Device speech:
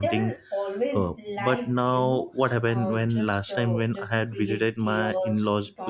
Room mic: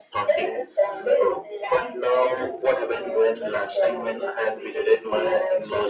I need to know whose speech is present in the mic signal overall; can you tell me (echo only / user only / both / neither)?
echo only